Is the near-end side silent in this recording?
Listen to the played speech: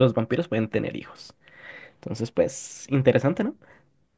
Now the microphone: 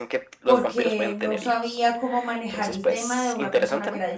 No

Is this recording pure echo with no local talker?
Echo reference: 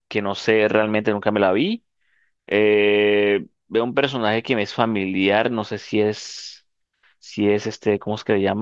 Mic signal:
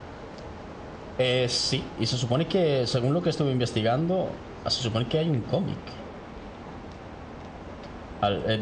No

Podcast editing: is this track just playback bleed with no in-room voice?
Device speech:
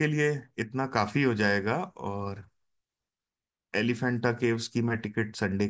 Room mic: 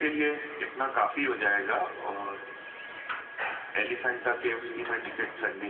Yes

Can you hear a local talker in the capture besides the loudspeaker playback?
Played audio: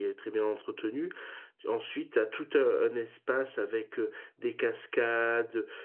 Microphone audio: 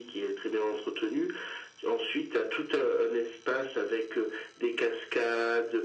No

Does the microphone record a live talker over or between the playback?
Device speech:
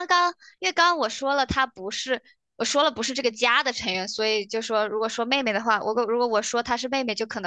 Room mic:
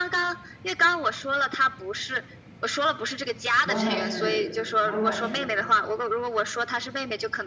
Yes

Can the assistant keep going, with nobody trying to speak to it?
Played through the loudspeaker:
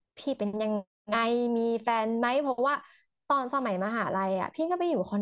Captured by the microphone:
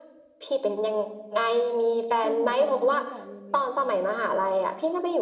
No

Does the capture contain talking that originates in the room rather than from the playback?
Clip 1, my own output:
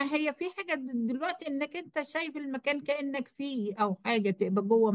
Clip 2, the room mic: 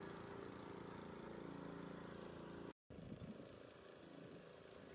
No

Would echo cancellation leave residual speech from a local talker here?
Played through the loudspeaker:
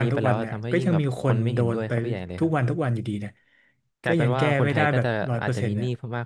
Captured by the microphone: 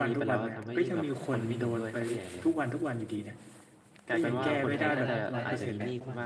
Yes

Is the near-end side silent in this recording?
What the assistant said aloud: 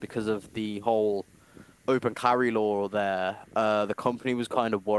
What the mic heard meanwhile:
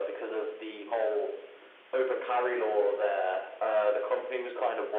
Yes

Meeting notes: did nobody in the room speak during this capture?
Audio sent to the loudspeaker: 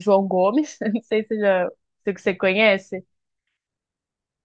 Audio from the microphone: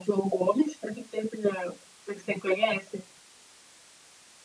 Yes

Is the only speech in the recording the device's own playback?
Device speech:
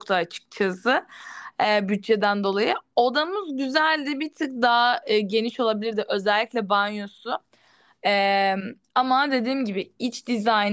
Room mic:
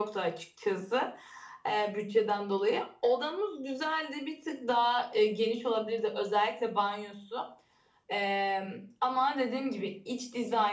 Yes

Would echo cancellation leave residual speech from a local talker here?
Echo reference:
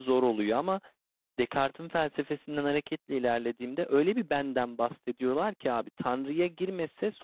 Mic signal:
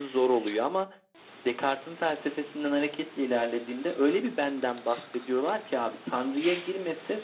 No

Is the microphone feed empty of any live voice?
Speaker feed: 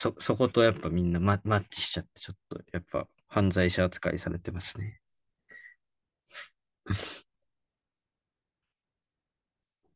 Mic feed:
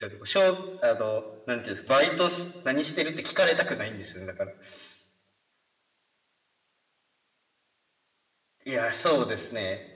No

